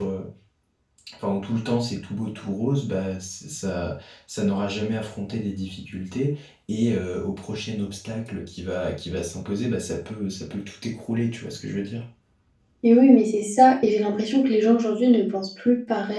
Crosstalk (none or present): none